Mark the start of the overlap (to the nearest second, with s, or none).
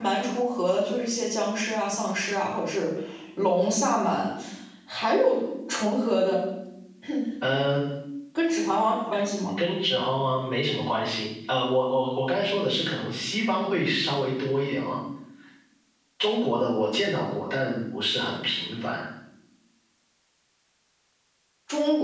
none